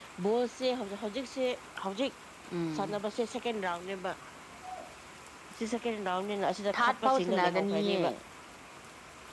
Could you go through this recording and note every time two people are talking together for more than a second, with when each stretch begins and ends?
6.8-8.0

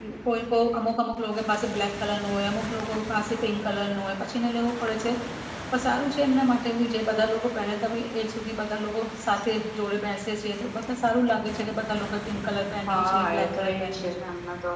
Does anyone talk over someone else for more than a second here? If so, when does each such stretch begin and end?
12.9-14.2

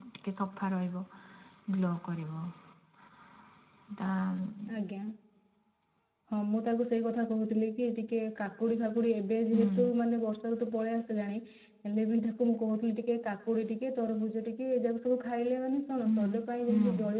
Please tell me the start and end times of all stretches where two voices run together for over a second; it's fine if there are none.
none

